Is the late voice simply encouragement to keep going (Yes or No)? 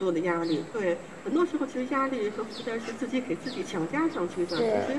Yes